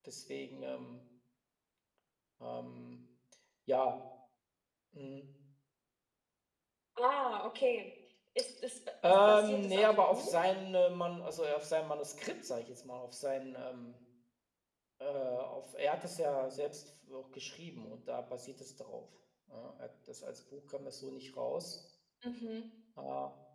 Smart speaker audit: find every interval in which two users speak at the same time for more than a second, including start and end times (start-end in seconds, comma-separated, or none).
9.0-10.4